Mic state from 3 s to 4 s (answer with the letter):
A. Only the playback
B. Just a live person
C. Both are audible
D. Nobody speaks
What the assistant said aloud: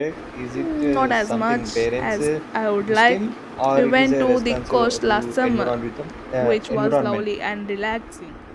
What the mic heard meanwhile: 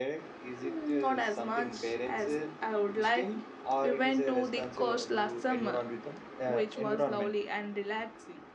A